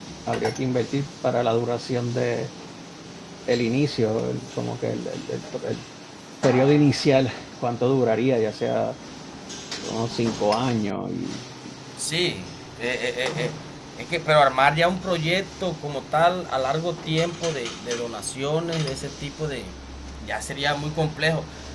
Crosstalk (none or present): none